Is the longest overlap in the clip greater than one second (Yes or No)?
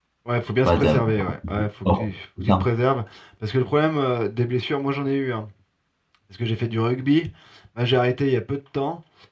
Yes